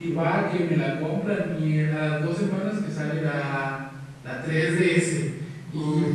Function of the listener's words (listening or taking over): listening